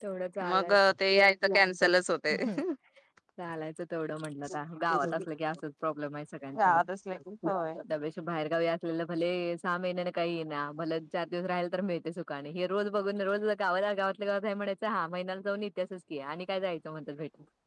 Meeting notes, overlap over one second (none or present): none